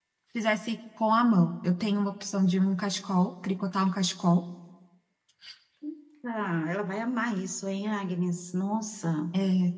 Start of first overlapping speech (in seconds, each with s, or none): none